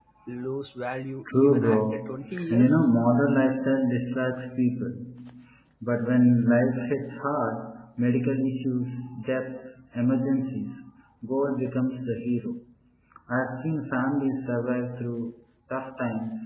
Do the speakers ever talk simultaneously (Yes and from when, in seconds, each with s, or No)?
Yes, from 1.3 s